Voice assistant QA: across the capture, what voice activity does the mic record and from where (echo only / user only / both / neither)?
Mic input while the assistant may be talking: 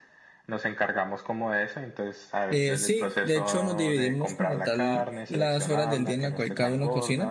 both